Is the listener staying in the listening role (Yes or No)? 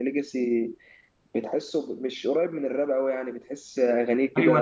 No